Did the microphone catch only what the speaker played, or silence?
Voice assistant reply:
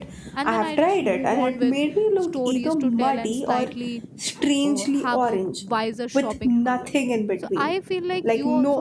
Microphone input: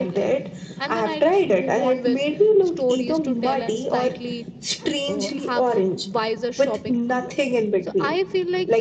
Yes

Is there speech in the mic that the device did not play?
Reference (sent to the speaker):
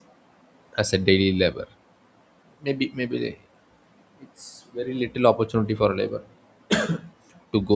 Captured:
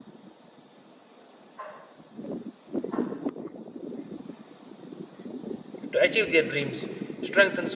Yes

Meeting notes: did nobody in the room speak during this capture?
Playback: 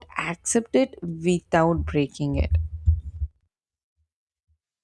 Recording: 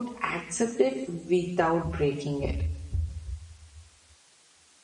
Yes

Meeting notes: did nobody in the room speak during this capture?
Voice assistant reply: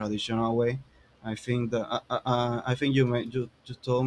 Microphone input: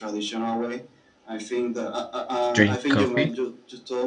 No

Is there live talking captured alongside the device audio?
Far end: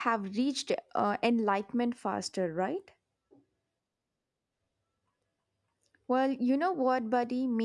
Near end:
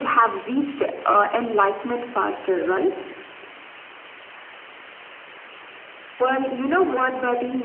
No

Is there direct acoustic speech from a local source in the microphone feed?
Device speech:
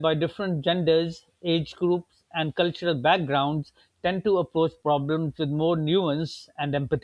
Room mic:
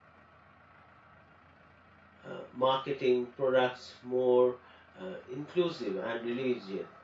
Yes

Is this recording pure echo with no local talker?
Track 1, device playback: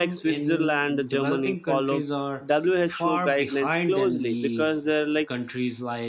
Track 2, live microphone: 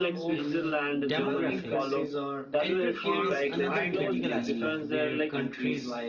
No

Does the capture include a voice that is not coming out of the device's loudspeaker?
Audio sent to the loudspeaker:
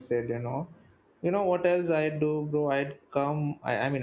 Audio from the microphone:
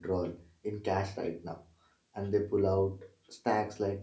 Yes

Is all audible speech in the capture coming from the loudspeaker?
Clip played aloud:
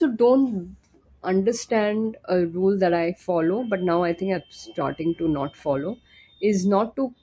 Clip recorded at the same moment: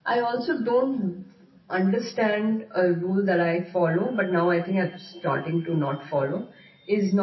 Yes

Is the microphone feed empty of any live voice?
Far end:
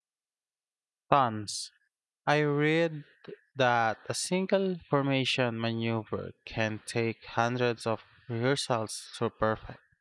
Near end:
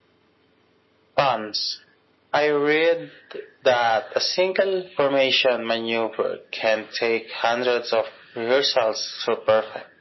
Yes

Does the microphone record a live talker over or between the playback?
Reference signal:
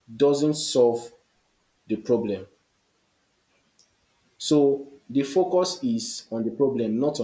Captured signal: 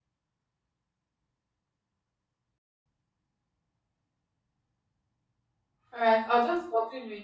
Yes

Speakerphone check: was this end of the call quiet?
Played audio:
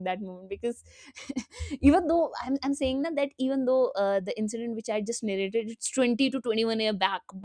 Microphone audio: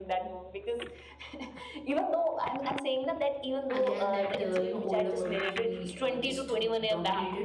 No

